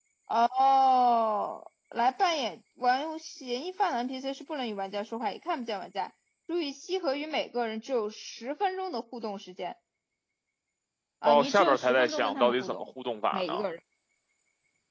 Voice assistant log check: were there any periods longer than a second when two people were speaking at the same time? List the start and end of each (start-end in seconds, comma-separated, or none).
11.3-12.9